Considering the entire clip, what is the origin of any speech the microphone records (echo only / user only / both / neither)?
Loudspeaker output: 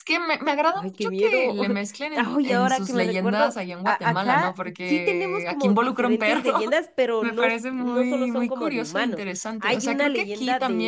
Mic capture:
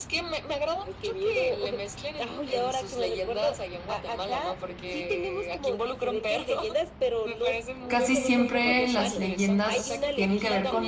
both